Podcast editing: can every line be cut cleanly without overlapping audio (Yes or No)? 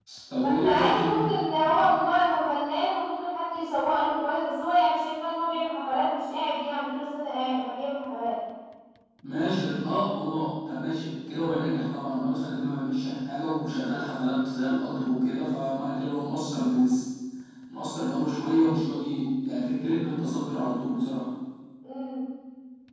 No